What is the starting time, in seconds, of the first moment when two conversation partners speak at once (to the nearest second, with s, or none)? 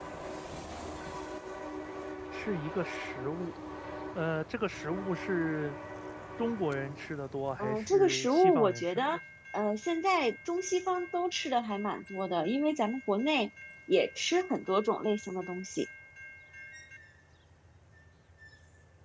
8 s